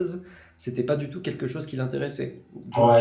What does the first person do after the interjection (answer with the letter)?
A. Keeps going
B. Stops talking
B